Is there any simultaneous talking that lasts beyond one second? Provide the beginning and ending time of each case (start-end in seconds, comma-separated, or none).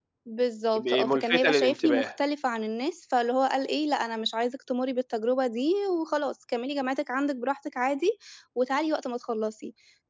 0.8-2.1